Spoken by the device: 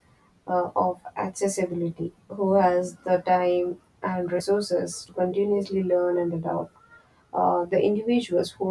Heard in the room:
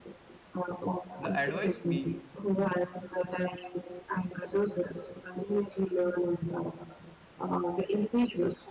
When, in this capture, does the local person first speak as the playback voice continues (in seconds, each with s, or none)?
1.2 s